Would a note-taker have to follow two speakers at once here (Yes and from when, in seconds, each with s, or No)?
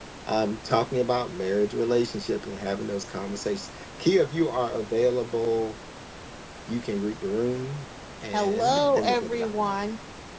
Yes, from 8.3 s